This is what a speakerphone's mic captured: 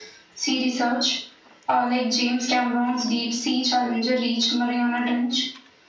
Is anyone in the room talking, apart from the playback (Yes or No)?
No